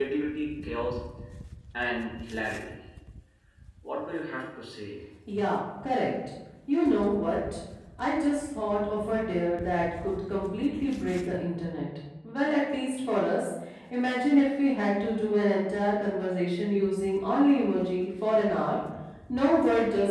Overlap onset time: none

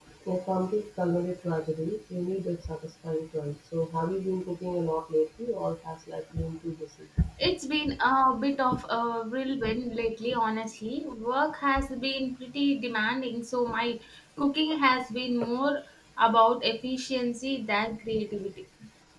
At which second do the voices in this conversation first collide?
none

